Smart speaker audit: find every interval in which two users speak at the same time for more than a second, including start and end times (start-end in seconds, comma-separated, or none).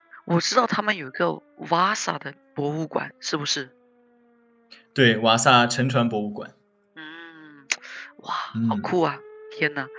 none